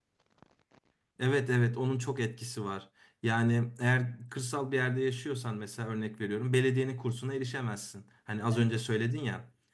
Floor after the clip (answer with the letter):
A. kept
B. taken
A